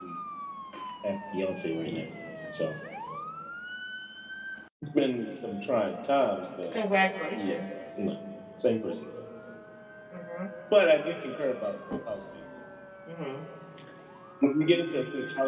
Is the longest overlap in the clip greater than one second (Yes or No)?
No